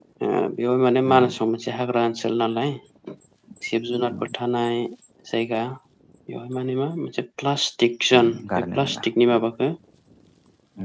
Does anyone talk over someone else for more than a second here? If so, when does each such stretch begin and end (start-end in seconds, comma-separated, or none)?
8.2-9.4